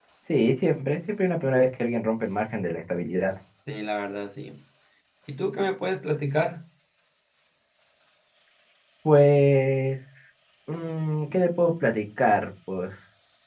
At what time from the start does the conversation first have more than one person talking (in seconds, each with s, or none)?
none